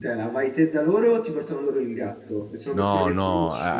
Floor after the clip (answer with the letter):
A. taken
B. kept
A